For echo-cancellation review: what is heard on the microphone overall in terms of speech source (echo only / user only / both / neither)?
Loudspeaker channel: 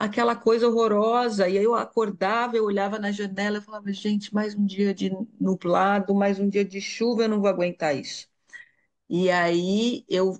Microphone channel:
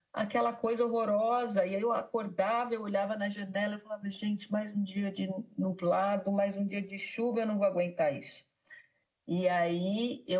echo only